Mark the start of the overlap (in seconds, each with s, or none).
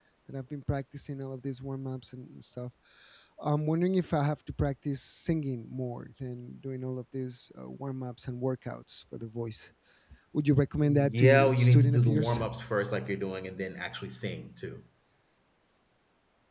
10.8 s